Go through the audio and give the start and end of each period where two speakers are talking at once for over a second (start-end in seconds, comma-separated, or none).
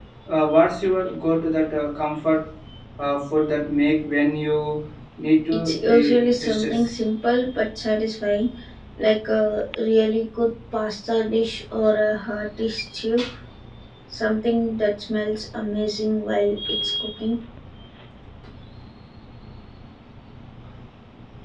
5.5-7.0